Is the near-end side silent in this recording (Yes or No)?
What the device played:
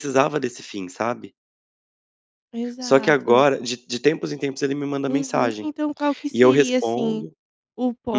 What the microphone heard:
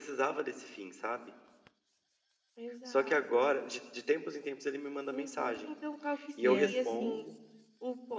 No